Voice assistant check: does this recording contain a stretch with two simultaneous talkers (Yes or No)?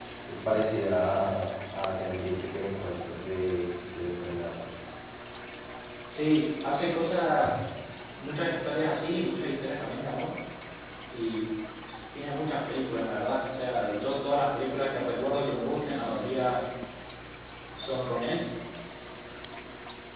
No